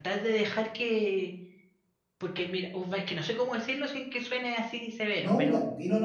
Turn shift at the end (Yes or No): Yes